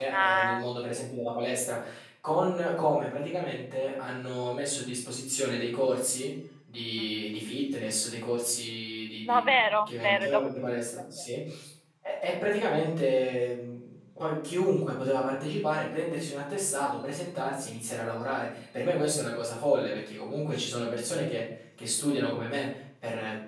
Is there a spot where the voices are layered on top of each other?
Yes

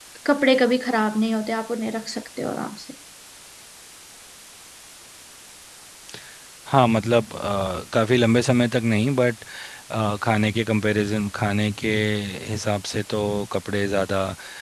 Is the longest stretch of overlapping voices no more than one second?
Yes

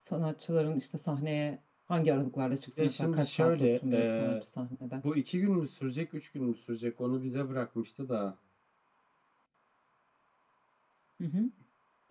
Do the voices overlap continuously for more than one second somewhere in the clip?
Yes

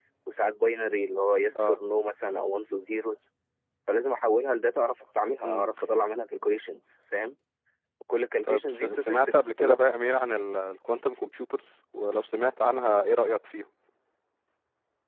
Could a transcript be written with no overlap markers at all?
No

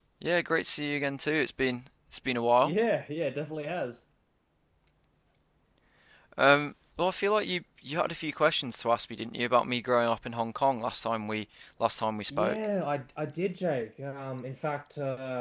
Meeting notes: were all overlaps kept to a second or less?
Yes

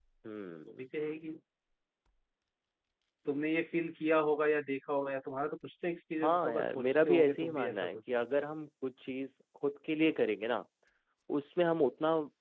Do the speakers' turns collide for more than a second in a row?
Yes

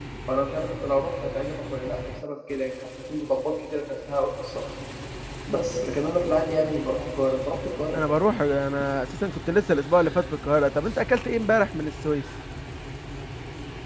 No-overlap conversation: Yes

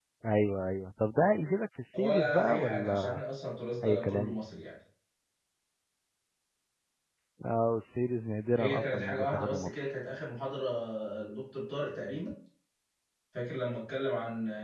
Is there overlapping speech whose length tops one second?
Yes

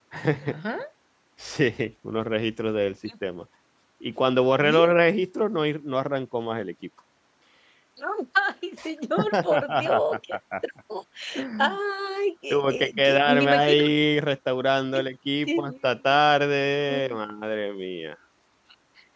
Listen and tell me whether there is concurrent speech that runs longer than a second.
Yes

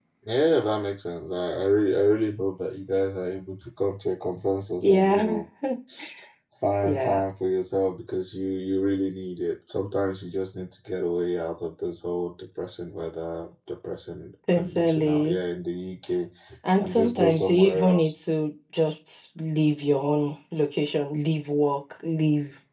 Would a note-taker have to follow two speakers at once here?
Yes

